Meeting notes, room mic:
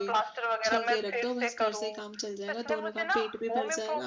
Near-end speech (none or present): present